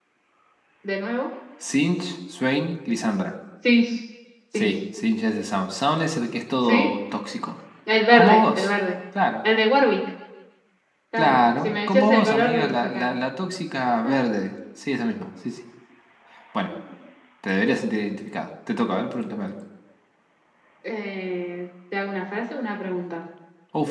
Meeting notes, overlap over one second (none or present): present